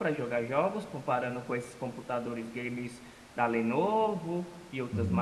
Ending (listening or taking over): taking over